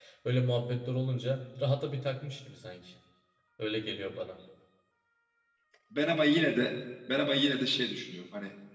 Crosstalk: none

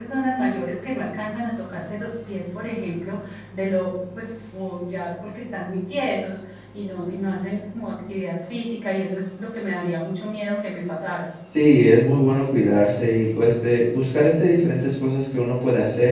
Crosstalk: none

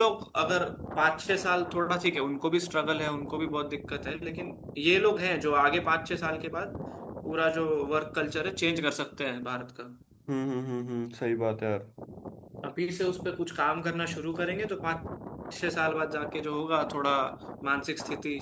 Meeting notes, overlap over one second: none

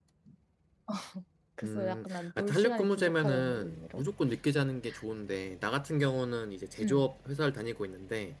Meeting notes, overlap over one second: present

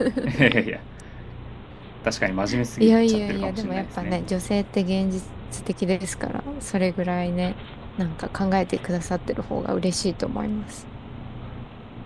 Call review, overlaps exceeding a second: present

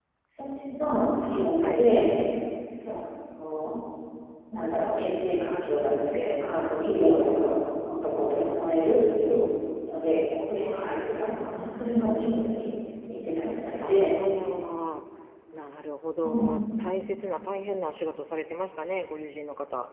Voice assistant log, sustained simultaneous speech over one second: none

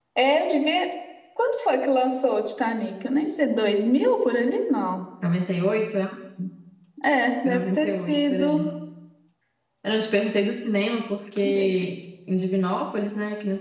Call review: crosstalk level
present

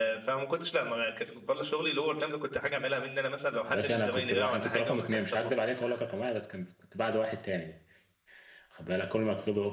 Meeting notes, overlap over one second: present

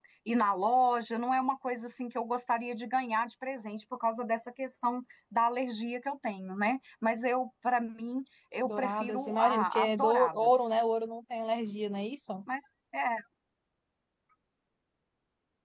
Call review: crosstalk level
present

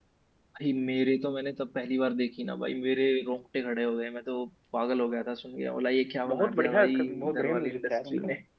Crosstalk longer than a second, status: present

